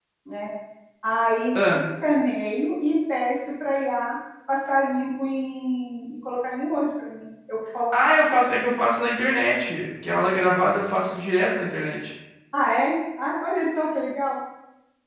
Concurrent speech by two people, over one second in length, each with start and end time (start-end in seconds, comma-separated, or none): none